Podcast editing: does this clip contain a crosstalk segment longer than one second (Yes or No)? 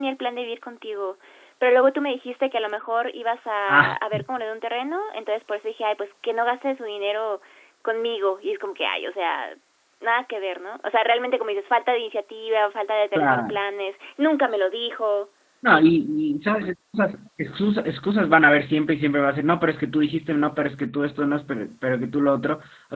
No